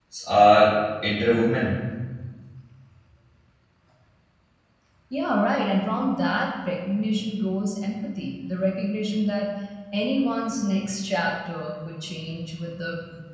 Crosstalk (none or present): none